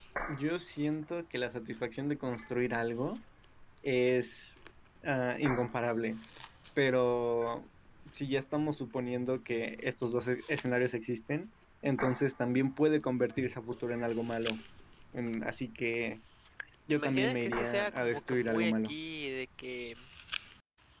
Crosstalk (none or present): present